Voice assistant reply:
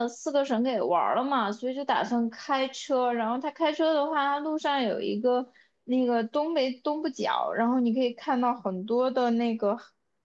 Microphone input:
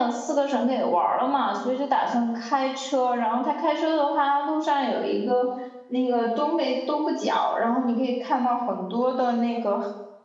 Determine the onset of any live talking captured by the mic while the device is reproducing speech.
none

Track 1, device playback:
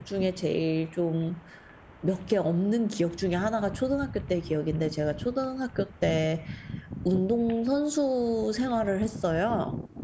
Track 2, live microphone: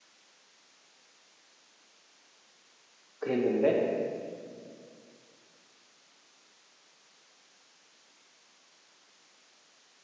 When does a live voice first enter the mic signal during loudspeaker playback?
3.2 s

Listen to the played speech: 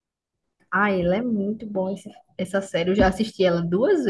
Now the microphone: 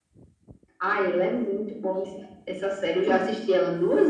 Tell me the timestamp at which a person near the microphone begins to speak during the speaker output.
none

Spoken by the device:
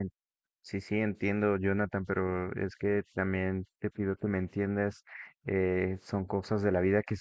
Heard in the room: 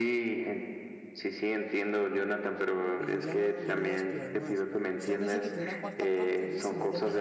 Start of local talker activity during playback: 3.0 s

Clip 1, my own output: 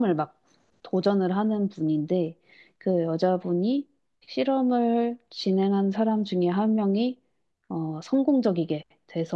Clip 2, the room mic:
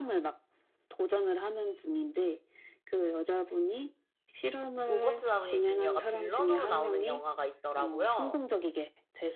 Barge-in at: 4.8 s

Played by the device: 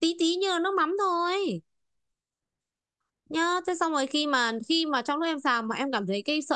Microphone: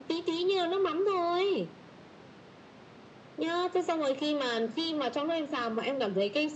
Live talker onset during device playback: none

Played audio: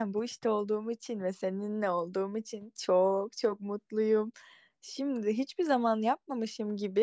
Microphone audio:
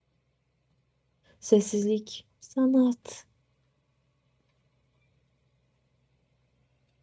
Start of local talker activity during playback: 1.4 s

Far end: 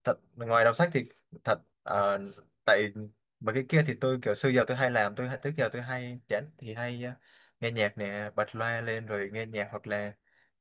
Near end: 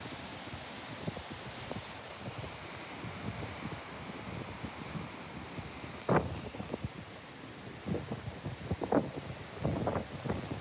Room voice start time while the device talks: none

